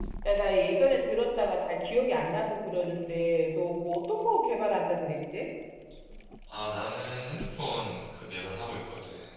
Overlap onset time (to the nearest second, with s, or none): none